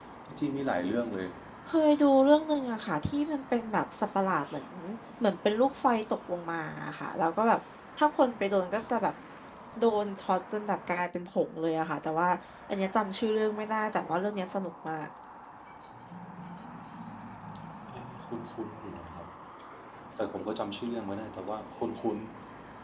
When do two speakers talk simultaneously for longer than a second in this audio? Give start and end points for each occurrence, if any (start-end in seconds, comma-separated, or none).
none